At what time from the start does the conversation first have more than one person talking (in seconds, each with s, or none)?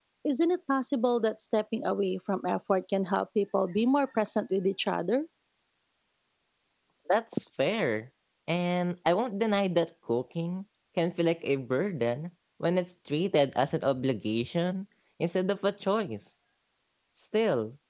none